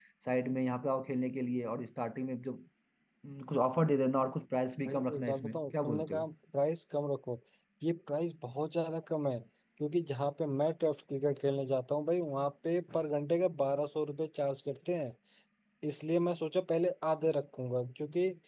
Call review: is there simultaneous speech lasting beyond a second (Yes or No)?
Yes